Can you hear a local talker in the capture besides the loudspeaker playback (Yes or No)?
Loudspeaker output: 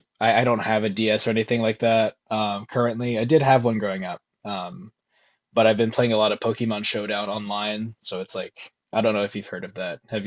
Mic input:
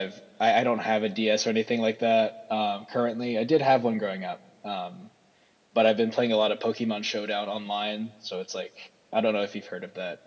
No